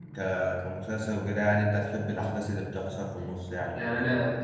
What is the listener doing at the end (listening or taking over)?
taking over